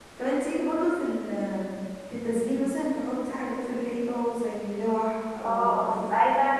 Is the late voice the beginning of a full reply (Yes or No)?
Yes